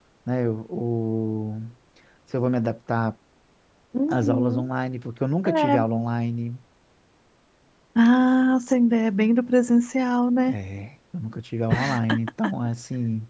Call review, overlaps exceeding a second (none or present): none